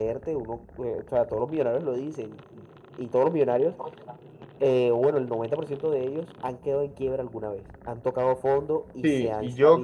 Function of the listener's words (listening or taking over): taking over